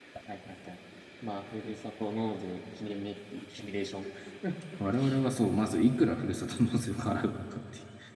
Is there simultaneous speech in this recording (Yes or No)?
No